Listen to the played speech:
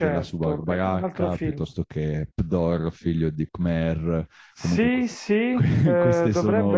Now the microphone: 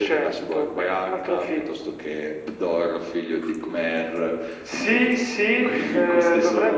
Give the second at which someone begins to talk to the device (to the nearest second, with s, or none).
none